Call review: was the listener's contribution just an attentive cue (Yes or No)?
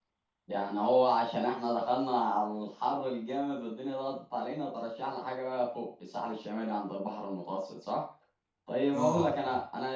Yes